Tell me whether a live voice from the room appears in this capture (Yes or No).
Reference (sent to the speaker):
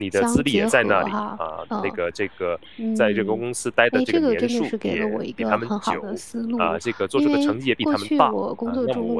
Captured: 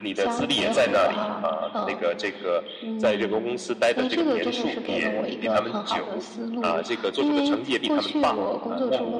No